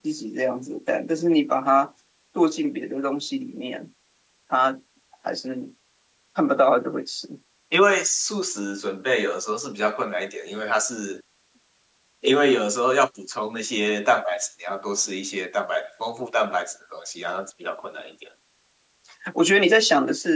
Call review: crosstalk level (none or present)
none